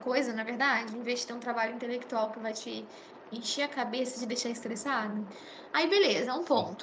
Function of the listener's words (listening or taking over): listening